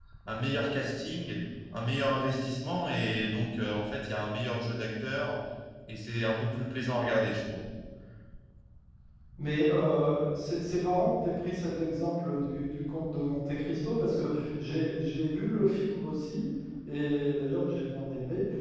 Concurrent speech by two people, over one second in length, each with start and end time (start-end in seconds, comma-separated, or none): none